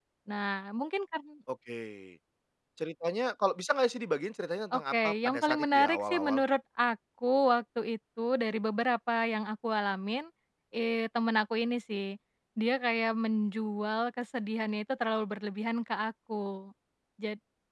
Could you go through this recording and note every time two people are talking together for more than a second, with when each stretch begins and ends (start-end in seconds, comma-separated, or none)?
4.7-6.4